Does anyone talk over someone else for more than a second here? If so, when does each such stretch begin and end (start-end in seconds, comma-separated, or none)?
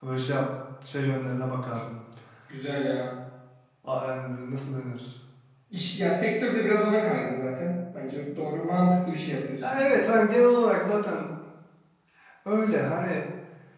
none